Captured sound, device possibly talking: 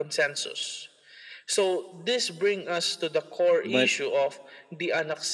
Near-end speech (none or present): present